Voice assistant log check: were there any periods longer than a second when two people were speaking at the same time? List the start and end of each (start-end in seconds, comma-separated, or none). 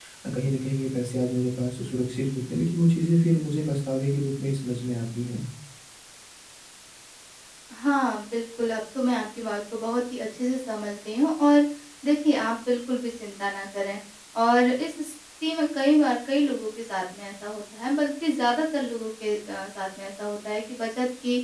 none